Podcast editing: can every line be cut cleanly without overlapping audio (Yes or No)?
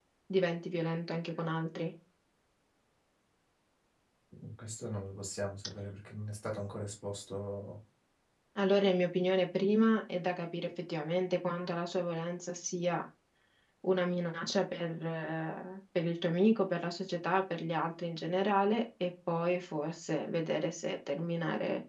Yes